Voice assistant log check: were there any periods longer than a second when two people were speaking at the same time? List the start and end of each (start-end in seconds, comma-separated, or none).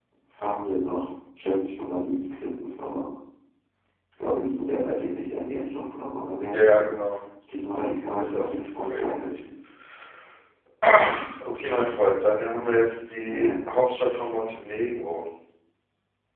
8.2-9.4